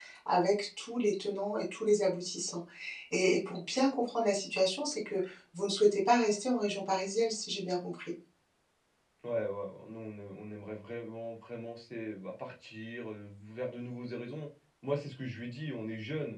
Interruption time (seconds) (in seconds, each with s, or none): none